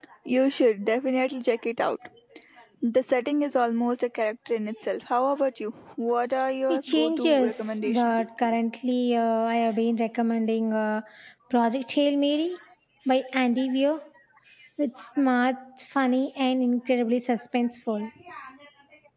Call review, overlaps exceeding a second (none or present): present